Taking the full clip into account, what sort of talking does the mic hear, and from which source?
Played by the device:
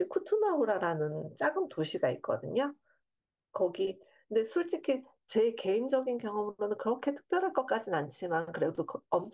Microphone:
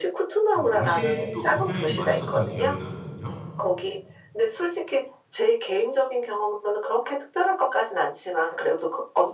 both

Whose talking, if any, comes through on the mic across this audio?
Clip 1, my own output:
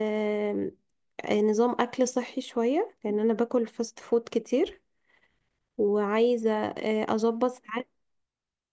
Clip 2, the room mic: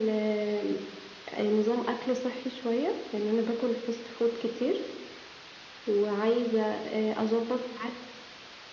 echo only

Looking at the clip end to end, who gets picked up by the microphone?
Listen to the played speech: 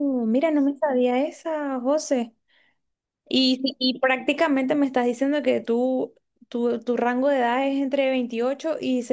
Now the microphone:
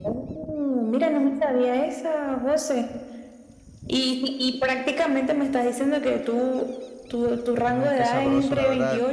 both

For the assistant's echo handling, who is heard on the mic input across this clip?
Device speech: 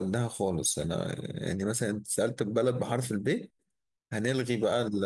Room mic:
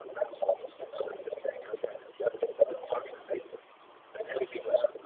echo only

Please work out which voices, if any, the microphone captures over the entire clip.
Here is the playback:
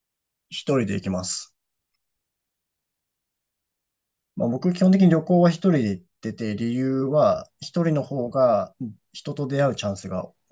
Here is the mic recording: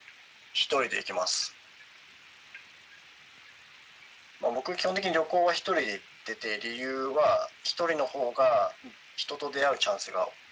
echo only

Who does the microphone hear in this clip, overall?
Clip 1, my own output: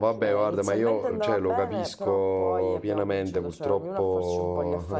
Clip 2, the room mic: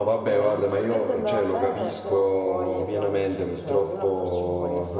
echo only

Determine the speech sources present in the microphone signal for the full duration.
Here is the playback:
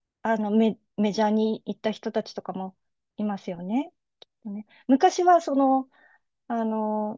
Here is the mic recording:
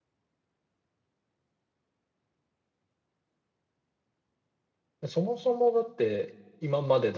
user only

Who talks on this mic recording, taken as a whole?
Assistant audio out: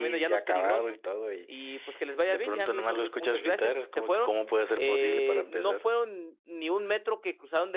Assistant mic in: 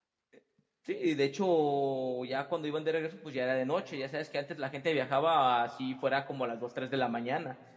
user only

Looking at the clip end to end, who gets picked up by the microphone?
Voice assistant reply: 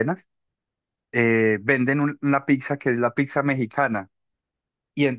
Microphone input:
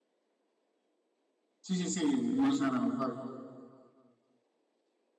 user only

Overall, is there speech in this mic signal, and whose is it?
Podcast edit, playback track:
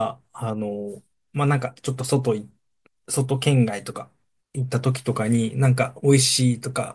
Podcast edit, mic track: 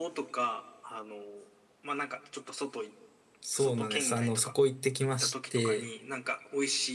both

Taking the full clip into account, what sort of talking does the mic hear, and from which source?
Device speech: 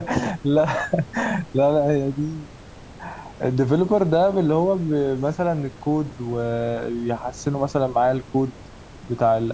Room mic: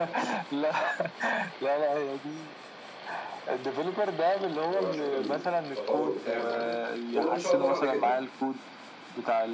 both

